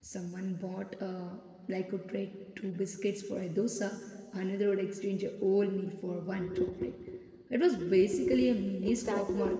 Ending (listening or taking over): taking over